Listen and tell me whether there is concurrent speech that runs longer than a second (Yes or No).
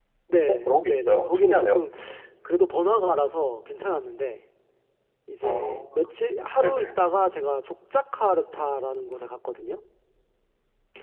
Yes